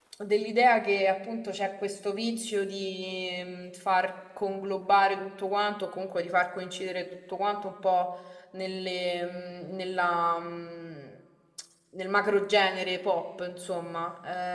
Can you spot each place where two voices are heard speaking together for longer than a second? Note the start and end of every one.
none

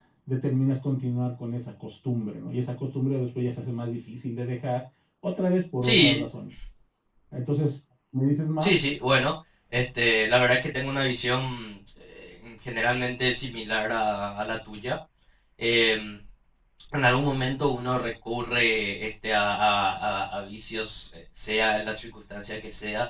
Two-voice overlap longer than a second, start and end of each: none

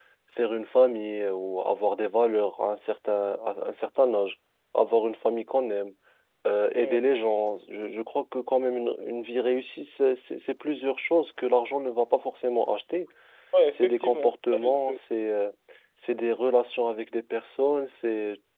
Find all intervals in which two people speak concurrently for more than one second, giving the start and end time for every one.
13.7-15.0

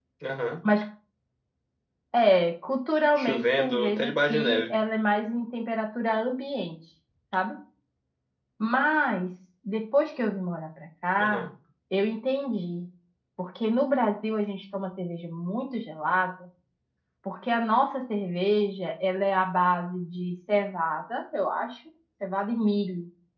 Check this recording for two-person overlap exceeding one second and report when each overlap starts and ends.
3.2-4.8

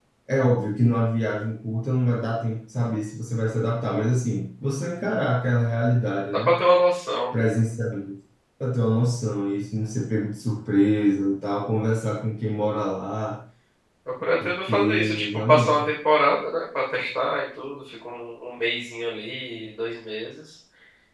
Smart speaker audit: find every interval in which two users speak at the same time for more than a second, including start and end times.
14.4-15.9

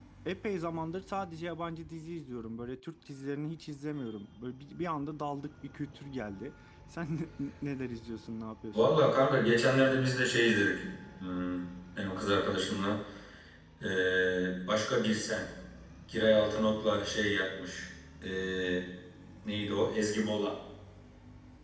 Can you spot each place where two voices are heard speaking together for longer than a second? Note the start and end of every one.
none

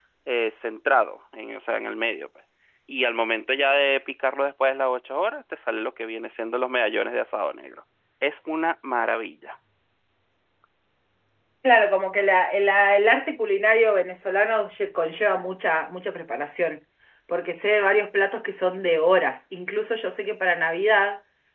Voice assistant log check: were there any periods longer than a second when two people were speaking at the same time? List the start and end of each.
none

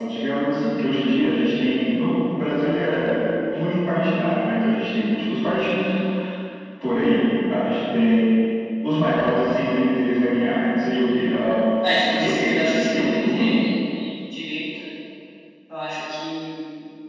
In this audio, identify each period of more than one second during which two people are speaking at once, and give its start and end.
12.0-13.4

